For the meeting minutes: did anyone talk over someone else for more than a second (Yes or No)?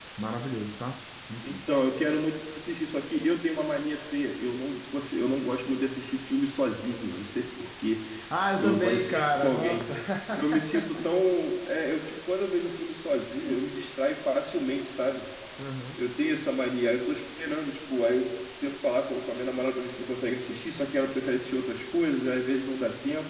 Yes